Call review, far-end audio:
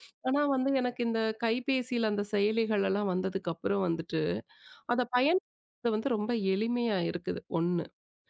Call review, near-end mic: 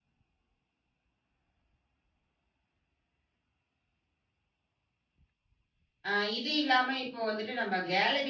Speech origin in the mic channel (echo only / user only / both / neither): user only